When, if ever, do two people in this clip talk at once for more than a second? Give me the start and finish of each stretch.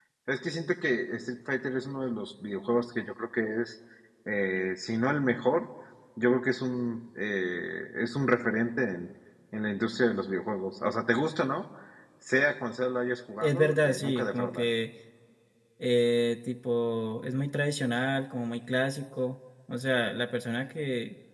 13.4-14.7

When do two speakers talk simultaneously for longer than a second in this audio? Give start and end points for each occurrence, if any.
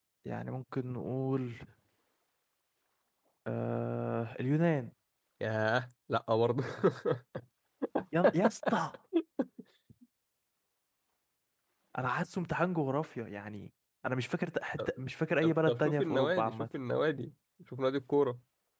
15.4-16.6

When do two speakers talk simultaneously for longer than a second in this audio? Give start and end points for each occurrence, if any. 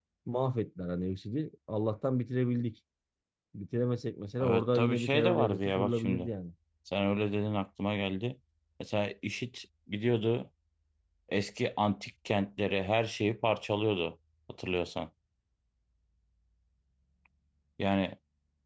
4.4-6.3

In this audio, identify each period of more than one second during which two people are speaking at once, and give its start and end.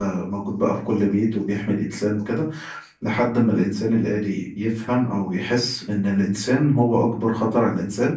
none

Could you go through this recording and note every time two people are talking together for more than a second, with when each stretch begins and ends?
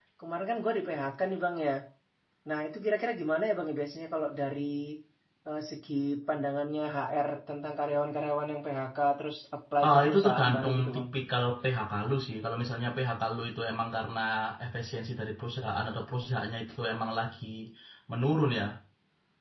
9.8-11.1

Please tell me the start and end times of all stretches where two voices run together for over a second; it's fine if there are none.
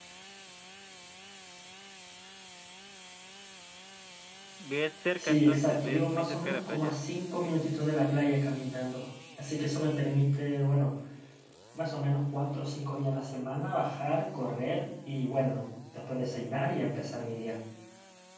5.2-7.0

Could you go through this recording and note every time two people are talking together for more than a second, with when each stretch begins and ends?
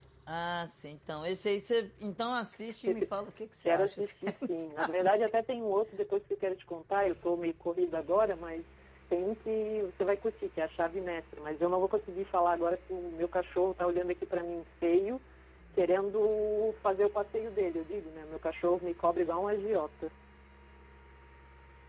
3.7-5.1

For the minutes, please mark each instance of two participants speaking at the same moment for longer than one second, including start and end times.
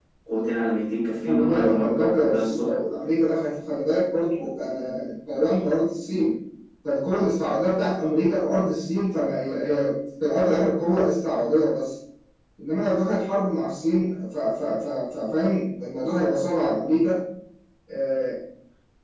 1.2-2.6

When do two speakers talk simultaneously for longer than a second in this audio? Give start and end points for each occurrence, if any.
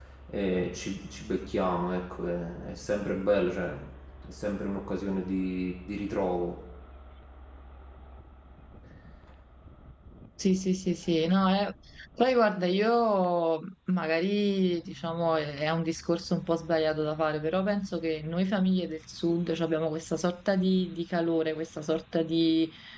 none

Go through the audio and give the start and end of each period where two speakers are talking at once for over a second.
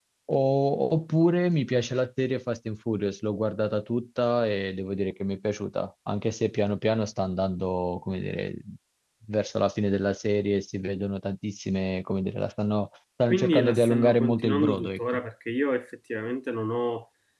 13.3-15.2

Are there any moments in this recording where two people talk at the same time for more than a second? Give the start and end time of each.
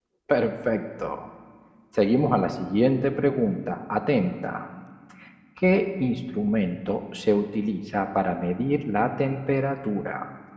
none

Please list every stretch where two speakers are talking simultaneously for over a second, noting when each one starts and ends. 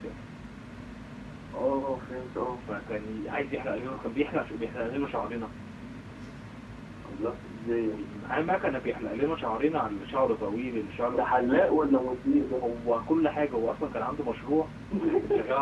none

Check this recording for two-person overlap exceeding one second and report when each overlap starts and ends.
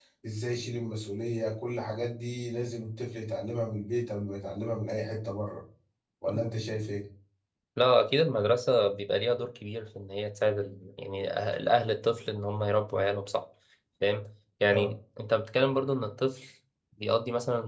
none

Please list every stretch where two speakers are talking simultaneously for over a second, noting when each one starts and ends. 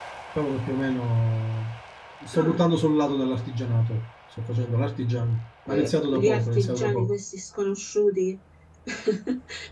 5.7-7.2

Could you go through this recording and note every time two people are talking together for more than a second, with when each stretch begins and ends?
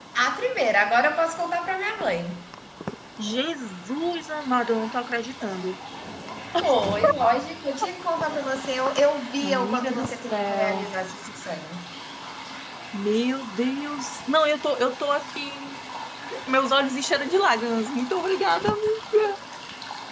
9.4-10.9

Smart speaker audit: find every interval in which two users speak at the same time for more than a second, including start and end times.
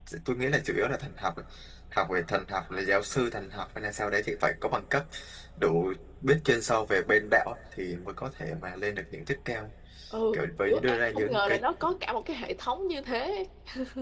10.3-11.6

